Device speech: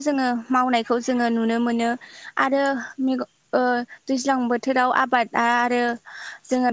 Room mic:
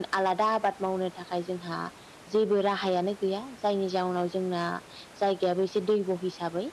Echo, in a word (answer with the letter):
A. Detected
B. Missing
B